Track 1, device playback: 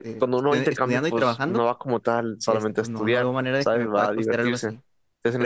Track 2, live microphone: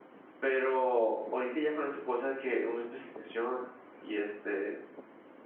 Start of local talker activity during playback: 0.4 s

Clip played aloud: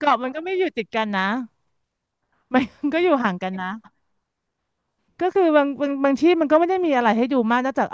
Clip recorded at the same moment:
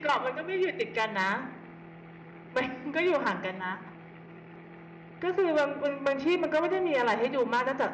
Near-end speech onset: none

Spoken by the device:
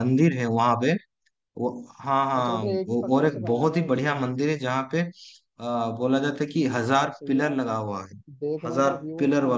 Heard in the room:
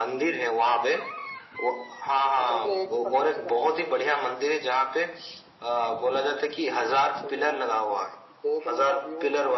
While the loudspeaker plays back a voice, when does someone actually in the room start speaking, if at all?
none

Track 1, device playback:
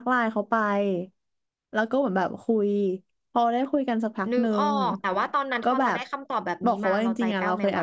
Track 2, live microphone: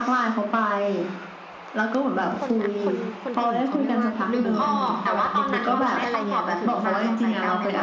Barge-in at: 2.4 s

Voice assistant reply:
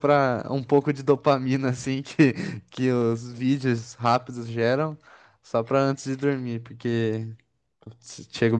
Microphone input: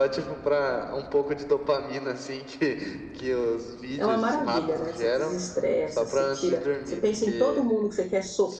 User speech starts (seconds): 4.0 s

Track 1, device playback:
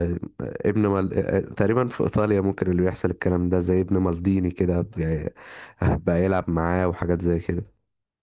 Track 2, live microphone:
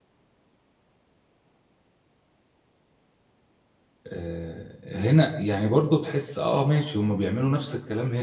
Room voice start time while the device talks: 4.1 s

